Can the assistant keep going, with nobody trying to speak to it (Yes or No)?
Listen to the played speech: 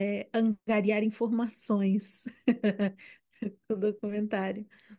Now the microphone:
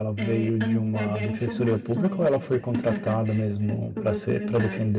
No